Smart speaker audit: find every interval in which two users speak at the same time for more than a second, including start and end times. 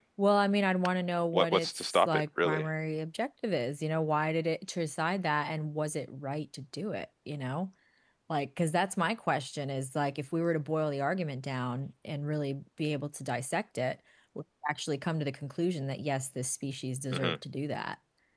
1.3-2.7

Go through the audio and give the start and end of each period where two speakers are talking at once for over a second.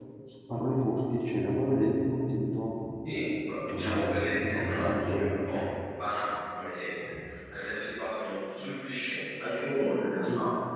3.7-5.5

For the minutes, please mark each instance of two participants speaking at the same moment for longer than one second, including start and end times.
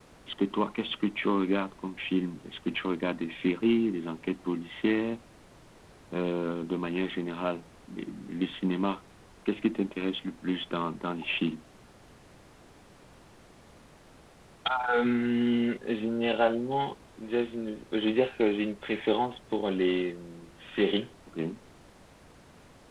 none

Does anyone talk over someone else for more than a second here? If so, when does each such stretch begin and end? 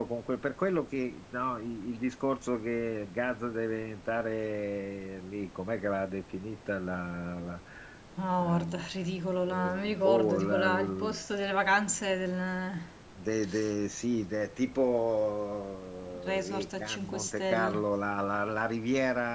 9.5-11.1, 16.3-17.7

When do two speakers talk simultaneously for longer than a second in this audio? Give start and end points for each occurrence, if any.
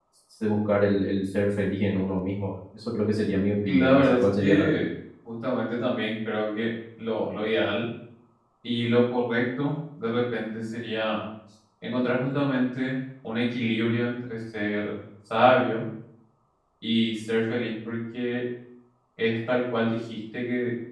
3.6-4.9

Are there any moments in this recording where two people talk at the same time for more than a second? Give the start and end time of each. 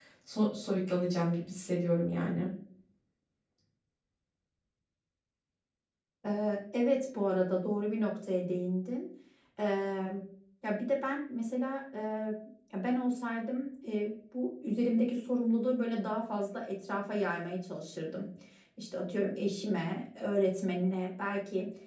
none

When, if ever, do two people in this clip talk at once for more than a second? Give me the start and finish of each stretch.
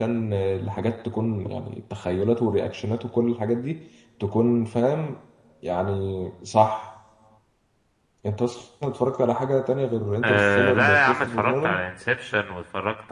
10.2-11.8

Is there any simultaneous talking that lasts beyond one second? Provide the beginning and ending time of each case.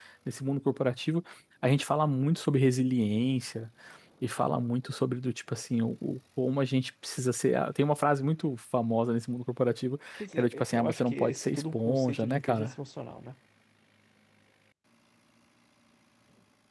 10.2-12.7

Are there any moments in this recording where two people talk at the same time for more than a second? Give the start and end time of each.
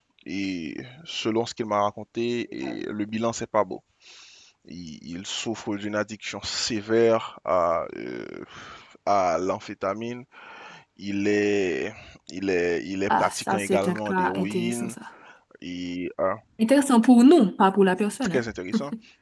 13.1-14.9

